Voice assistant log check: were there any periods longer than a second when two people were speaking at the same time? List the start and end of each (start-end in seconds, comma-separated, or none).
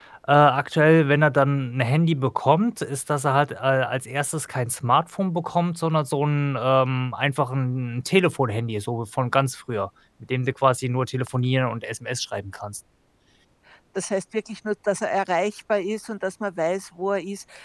none